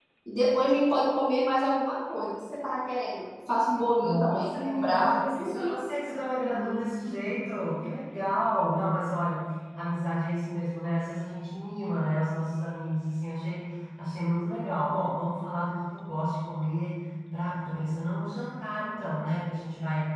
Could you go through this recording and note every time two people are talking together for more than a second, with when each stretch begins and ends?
4.0-5.8

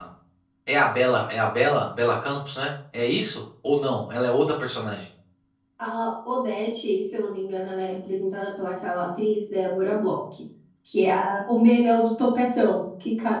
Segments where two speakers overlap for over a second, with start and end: none

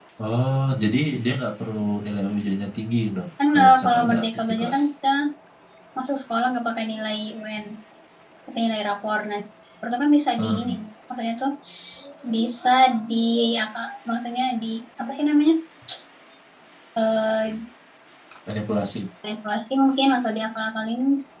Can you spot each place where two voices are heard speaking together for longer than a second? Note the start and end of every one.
3.5-4.8

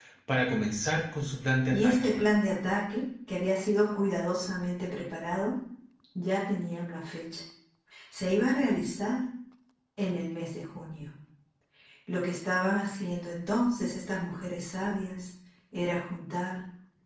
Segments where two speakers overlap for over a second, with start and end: none

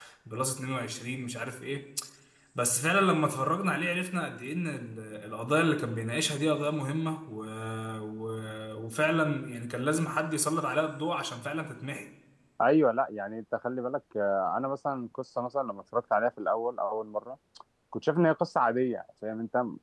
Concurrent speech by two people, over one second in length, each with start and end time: none

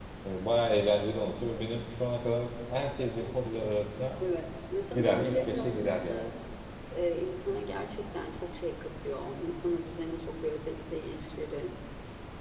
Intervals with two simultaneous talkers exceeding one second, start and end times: 4.9-6.2

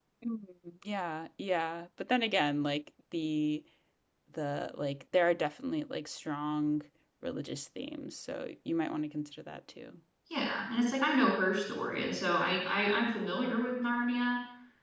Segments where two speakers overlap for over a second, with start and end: none

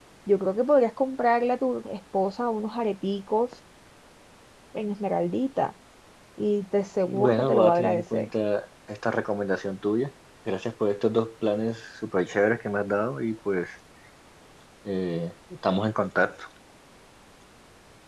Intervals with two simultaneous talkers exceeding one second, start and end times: 7.0-8.3

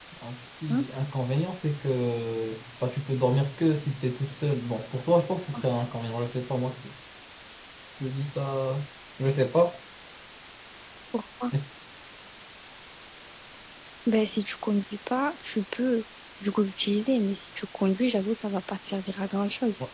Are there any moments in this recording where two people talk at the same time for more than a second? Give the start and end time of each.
none

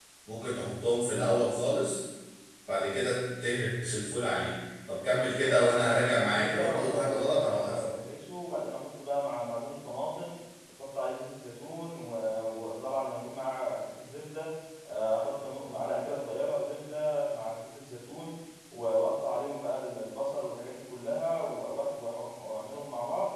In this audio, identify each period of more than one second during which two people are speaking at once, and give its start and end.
5.0-7.8

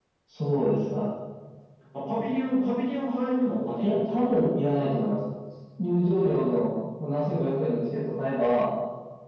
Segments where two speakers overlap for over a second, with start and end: none

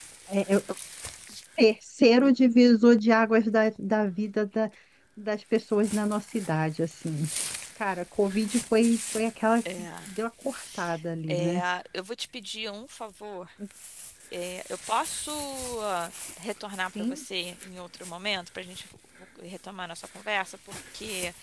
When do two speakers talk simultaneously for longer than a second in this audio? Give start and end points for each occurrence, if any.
none

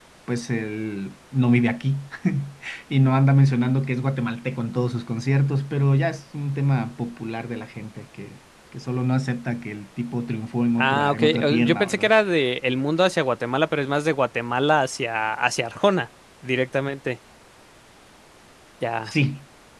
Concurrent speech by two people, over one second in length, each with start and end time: 10.8-12.1

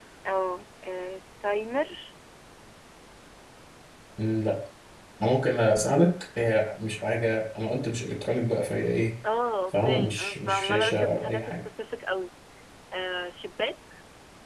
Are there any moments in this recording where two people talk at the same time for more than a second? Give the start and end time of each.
9.7-11.7

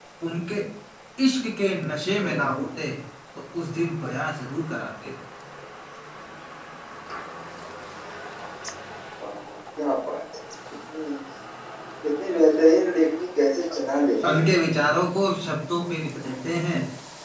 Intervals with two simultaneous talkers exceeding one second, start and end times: none

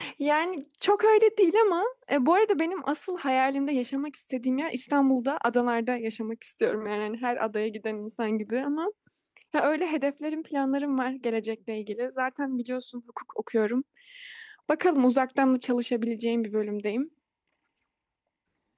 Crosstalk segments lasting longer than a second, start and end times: none

